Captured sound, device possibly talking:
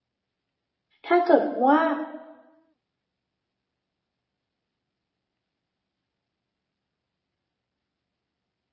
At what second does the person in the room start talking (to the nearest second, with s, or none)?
1 s